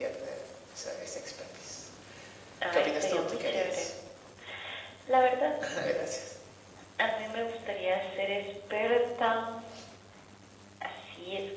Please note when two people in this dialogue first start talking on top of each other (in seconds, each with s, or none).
2.7 s